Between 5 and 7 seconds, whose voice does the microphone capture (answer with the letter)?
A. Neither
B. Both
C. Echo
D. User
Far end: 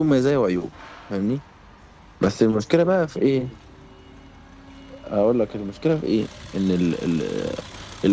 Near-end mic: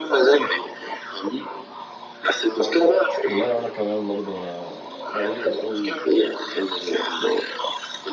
B